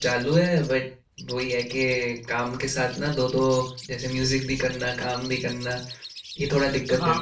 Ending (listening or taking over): taking over